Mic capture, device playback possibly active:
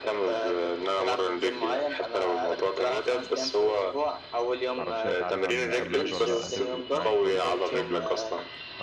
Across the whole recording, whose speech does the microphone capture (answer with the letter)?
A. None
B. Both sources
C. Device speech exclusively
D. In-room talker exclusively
B